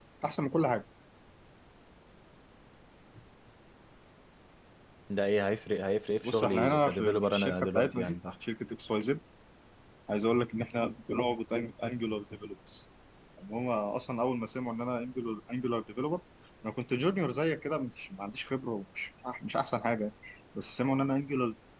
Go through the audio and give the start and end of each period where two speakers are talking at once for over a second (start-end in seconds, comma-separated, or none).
6.2-8.2